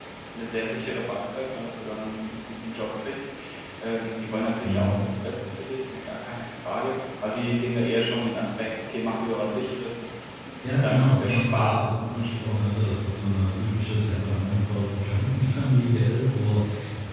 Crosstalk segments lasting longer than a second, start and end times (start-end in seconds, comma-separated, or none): 10.8-12.9